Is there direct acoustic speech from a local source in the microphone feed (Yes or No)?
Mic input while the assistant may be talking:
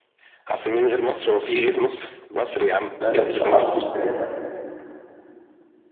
Yes